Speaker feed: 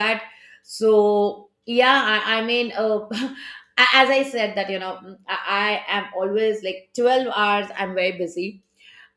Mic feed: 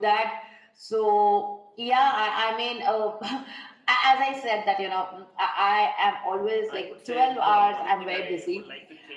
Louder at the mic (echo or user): echo